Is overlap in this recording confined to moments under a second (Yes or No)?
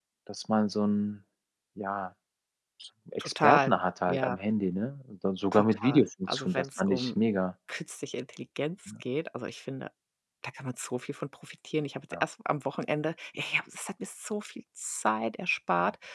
No